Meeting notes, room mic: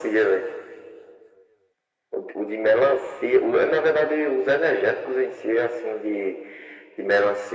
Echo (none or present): present